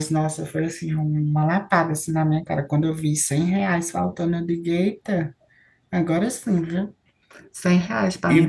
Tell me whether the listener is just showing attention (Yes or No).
No